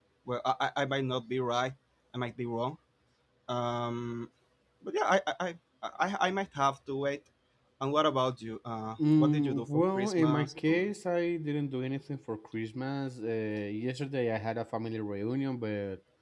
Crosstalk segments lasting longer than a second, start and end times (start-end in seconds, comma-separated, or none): 9.1-10.9